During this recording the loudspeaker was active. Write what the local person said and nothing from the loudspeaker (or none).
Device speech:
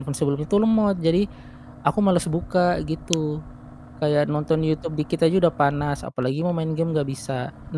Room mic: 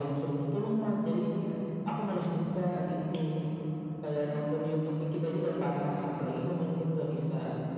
none